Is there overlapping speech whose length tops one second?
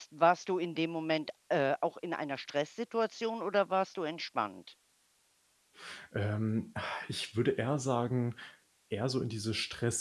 No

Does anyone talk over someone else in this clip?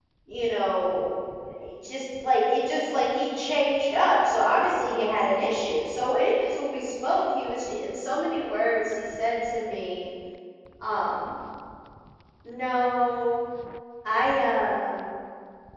No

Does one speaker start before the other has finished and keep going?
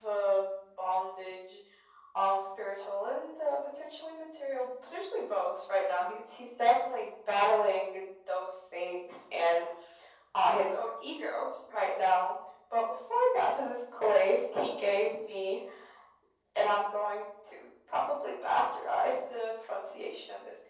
No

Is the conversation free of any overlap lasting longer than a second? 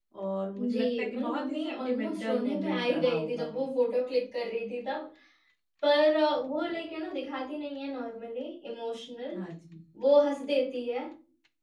No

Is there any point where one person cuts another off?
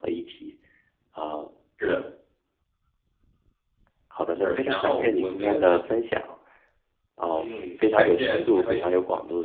Yes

